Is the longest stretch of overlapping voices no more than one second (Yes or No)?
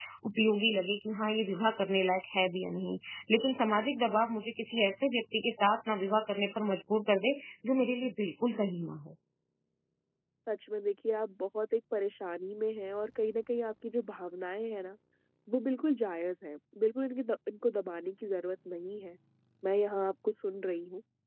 Yes